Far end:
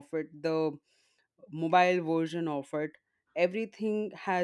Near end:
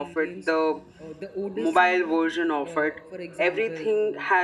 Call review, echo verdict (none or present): present